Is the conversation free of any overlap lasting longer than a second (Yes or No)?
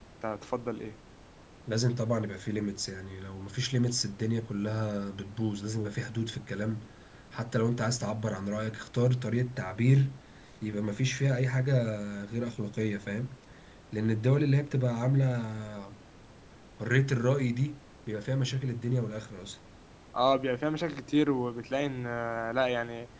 Yes